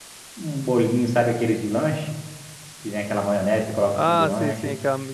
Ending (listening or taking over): taking over